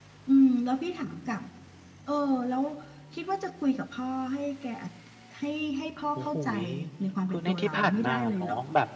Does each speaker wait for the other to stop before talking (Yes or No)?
No